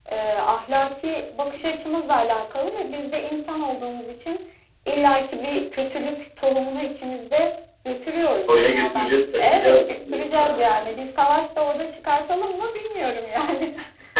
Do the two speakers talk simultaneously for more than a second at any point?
Yes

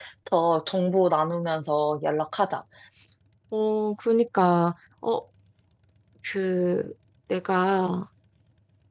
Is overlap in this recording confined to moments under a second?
Yes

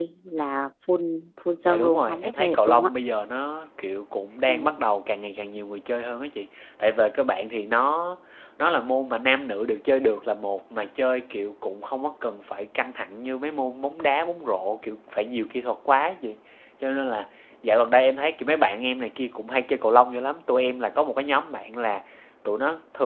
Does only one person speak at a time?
No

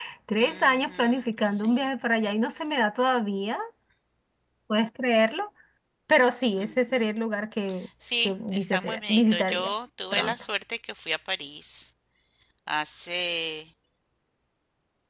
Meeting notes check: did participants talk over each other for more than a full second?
Yes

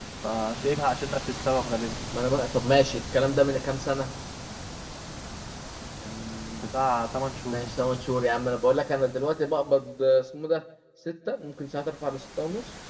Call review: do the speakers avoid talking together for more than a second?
Yes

